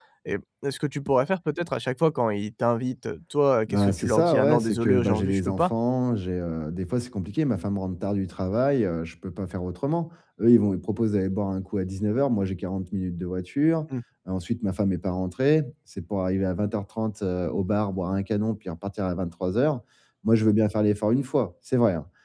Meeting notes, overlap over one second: present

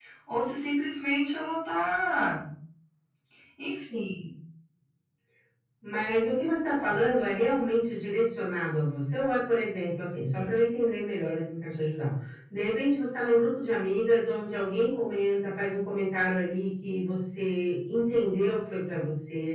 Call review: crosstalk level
none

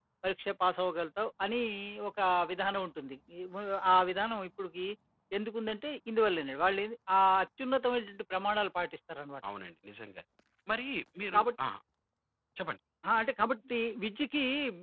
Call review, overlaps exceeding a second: none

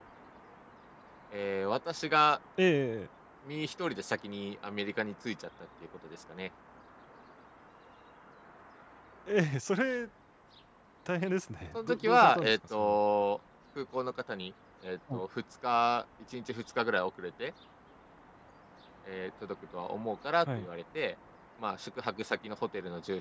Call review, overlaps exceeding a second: present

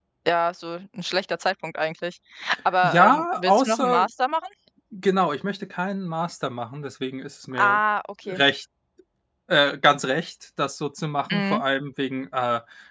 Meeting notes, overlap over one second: present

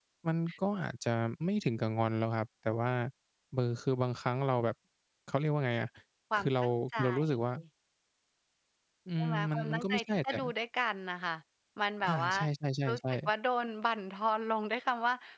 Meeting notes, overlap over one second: present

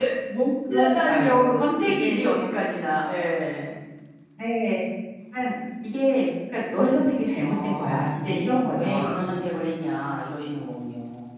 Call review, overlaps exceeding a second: present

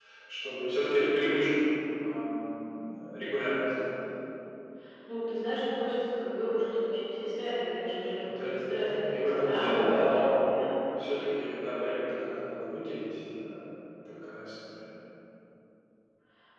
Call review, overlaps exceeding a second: present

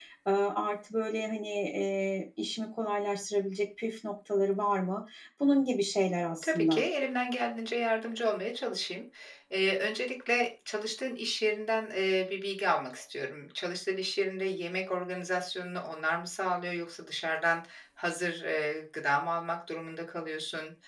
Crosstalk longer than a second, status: none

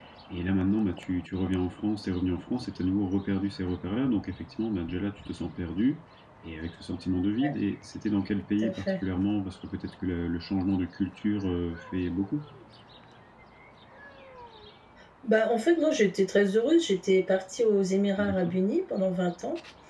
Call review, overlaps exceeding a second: none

